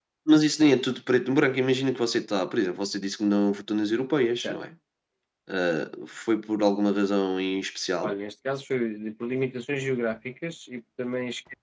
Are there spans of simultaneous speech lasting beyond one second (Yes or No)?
No